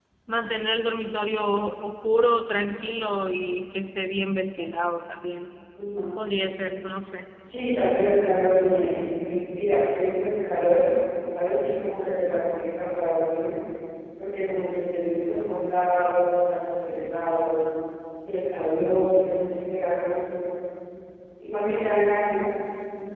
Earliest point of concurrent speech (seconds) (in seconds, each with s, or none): none